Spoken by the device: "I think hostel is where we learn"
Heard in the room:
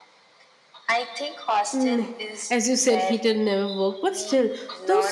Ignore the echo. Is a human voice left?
Yes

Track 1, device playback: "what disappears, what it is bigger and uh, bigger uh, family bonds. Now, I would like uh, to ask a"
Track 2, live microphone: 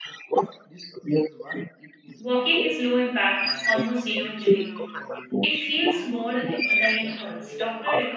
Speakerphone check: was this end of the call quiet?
No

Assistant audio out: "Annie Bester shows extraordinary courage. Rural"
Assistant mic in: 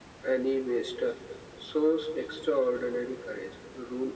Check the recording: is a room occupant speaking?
No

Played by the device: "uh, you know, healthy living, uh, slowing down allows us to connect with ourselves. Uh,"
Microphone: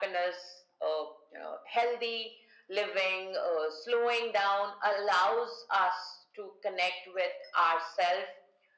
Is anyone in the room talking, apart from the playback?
No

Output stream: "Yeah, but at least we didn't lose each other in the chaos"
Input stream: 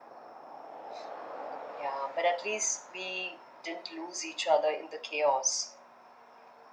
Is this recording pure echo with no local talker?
Yes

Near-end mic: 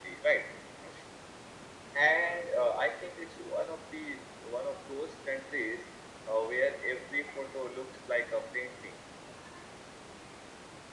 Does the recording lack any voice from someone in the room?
Yes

